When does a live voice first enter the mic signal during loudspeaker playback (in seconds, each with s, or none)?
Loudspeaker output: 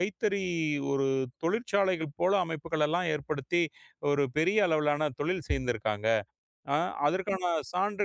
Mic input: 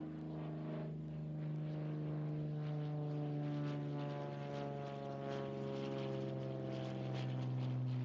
none